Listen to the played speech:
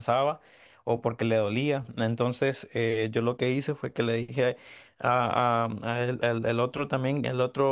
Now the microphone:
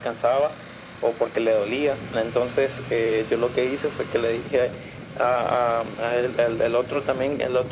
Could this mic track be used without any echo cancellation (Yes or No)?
No